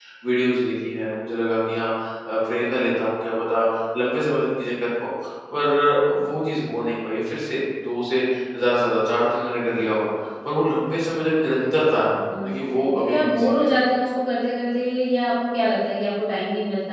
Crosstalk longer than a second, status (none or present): present